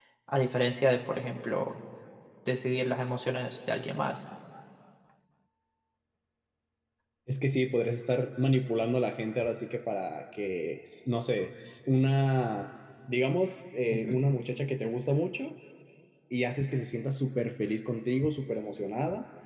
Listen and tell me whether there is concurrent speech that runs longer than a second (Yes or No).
No